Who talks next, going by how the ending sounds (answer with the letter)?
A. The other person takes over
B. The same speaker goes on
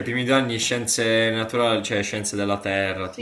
A